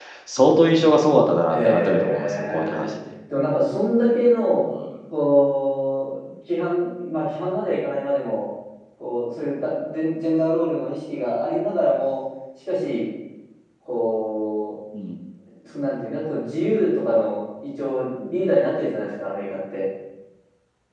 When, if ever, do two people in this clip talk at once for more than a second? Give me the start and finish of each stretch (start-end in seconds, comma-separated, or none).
1.5-2.9